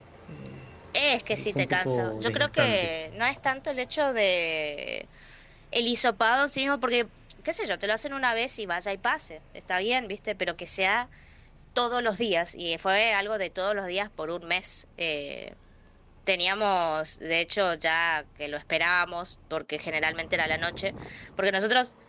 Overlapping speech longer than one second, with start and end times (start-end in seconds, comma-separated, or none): 1.3-2.9